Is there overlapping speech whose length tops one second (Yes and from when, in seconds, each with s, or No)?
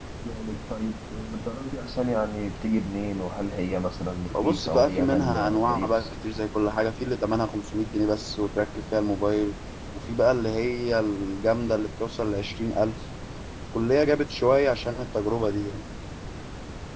Yes, from 4.3 s